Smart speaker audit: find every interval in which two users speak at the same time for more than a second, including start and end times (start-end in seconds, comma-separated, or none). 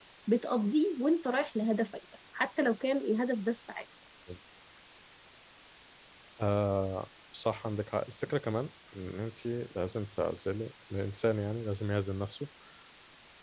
none